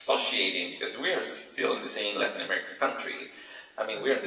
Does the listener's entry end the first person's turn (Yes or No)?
No